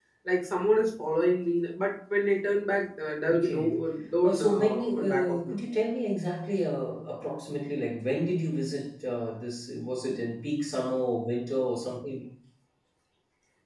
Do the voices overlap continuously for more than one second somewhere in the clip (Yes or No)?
Yes